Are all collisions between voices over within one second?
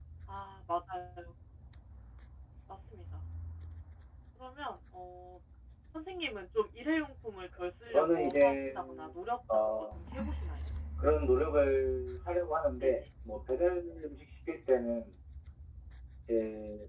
No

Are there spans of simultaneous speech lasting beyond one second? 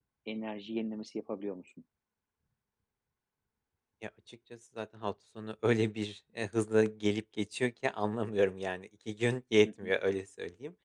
No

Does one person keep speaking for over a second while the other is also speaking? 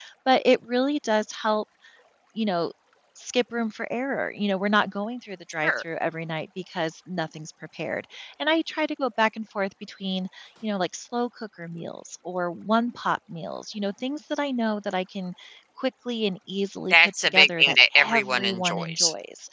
Yes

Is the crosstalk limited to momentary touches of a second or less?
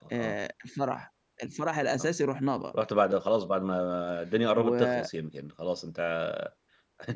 Yes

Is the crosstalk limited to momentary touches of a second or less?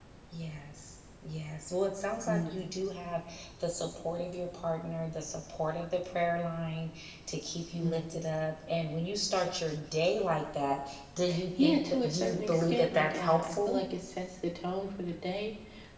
No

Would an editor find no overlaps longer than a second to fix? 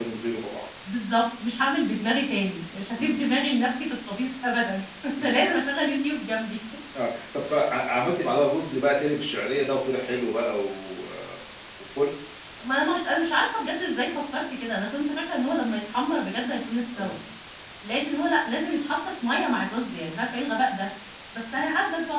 Yes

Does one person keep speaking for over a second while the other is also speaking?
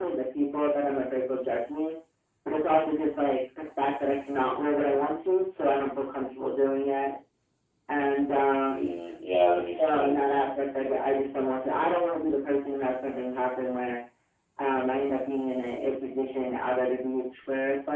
No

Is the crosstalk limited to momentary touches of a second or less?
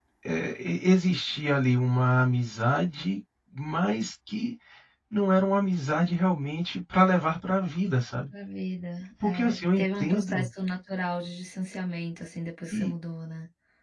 No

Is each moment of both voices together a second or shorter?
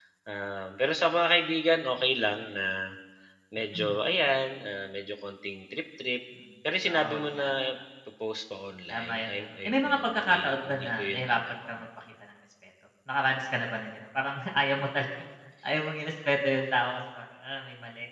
No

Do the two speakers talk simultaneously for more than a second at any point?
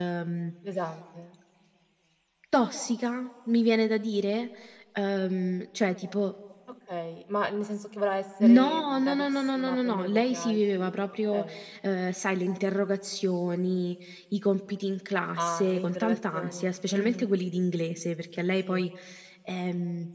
Yes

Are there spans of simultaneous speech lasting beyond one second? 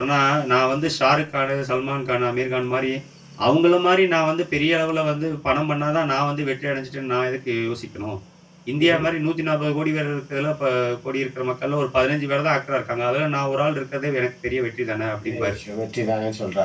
No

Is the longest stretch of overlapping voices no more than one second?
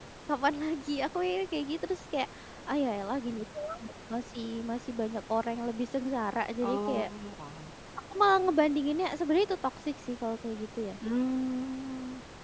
Yes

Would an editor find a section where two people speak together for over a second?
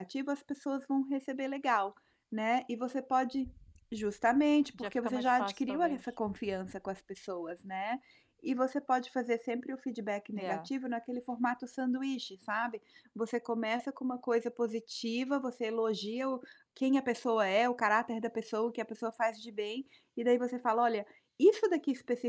Yes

